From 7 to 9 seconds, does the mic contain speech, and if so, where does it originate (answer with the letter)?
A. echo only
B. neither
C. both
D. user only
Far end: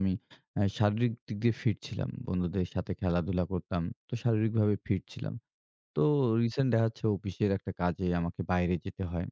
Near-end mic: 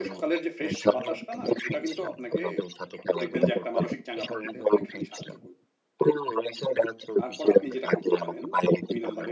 C